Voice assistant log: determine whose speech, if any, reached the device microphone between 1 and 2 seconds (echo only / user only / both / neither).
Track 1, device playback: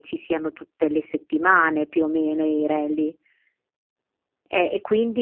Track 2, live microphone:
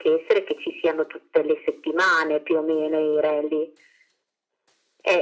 echo only